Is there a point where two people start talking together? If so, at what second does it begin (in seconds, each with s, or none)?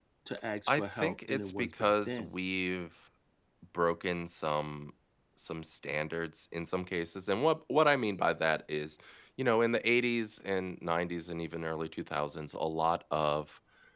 0.7 s